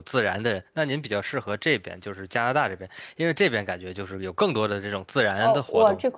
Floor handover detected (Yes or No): Yes